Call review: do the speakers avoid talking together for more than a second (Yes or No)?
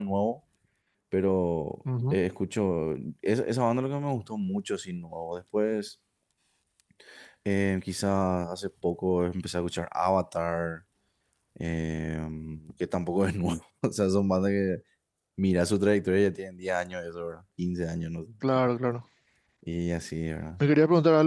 Yes